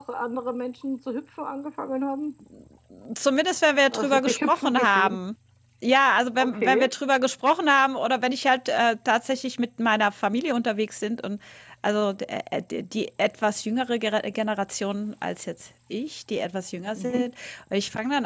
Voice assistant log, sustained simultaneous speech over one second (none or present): present